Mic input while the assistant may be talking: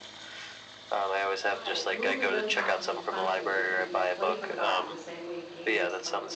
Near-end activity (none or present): present